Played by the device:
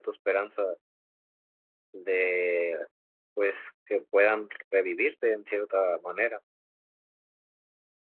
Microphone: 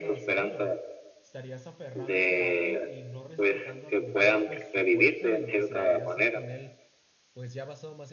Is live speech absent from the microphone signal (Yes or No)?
No